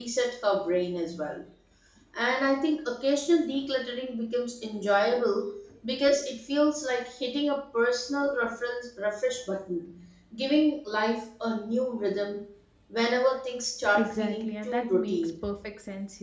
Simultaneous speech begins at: 14 s

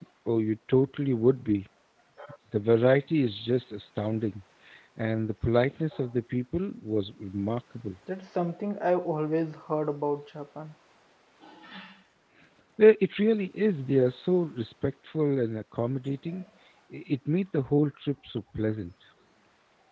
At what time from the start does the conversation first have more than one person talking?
none

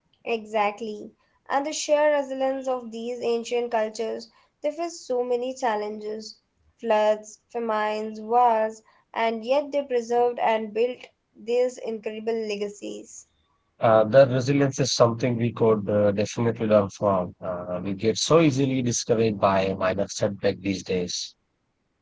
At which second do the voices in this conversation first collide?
none

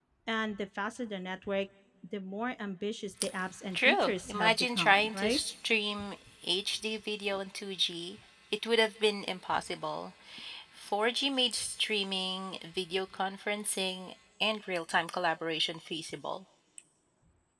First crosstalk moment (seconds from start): 4 s

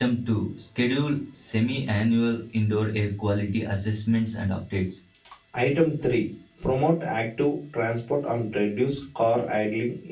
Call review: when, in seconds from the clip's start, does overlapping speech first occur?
none

